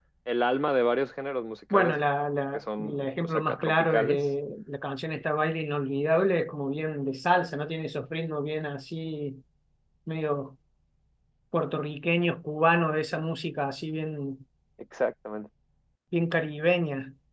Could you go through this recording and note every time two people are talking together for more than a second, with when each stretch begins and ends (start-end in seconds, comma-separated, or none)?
2.5-4.2